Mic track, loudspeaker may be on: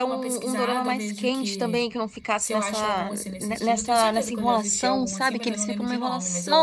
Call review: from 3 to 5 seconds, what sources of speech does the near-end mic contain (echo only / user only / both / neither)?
both